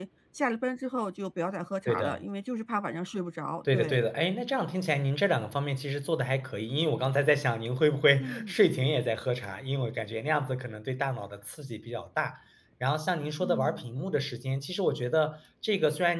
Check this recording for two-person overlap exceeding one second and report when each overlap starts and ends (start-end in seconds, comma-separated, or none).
none